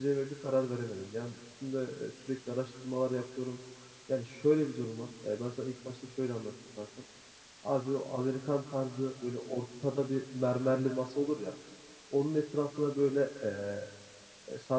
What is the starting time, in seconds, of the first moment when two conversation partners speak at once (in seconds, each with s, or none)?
none